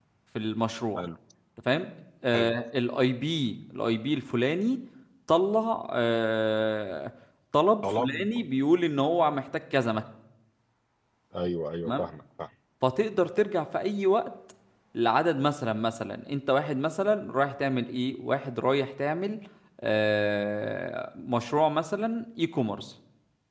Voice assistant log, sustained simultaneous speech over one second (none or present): none